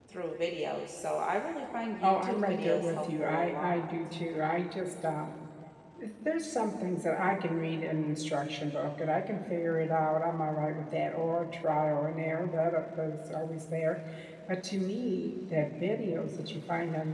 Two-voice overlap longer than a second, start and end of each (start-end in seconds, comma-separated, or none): 2.0-3.9